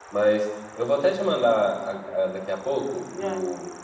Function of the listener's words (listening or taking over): listening